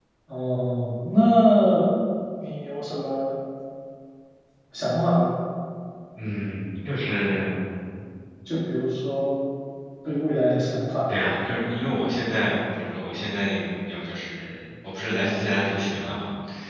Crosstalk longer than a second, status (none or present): none